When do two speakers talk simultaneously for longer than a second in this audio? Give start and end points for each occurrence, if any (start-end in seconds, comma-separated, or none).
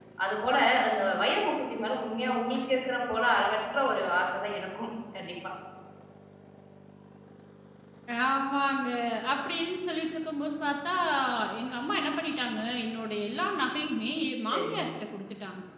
none